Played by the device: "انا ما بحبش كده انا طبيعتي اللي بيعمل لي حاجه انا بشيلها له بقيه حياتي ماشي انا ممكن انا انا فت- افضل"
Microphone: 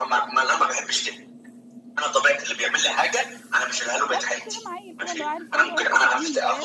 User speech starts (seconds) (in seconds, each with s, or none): 4.1 s